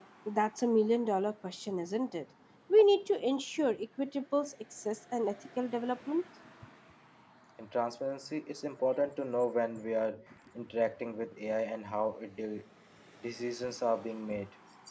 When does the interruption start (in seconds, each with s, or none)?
none